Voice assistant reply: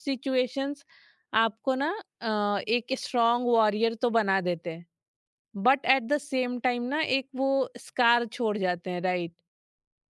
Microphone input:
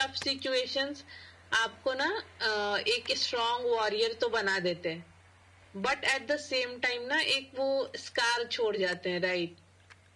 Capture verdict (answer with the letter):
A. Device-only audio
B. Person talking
A